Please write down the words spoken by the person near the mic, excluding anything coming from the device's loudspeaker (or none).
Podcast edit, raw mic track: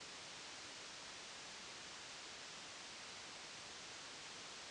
none